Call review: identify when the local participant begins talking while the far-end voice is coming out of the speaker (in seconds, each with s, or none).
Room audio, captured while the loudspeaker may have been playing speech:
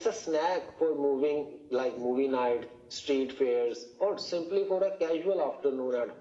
none